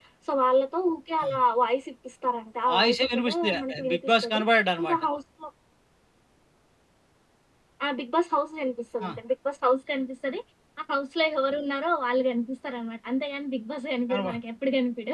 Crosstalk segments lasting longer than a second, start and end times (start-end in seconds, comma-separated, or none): 2.7-4.4